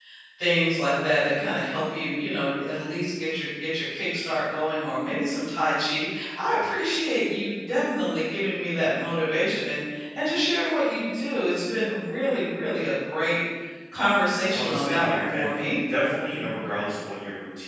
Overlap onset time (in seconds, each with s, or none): 14.5 s